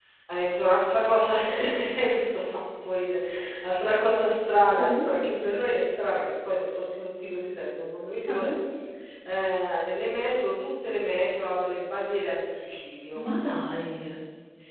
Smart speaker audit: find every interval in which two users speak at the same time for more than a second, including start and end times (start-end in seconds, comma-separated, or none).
none